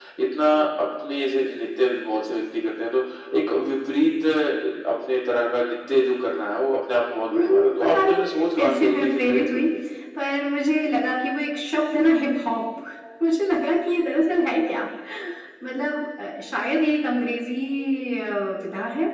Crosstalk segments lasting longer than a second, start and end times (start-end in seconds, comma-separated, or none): 7.3-9.6